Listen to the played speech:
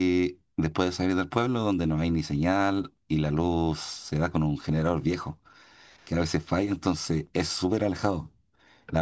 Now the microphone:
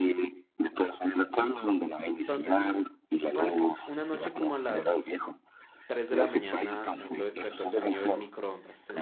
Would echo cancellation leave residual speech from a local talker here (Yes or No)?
Yes